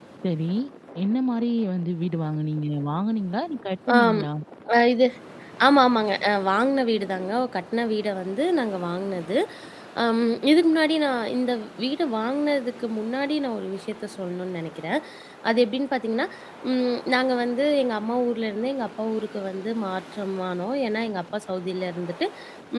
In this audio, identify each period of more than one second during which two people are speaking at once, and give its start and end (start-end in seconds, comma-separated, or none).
none